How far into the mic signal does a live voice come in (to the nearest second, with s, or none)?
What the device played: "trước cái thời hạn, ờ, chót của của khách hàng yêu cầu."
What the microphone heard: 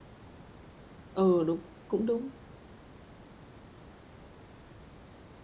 1 s